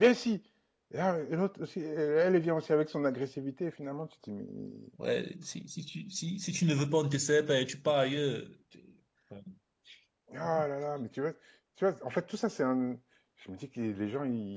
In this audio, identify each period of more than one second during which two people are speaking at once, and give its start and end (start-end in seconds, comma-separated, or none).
none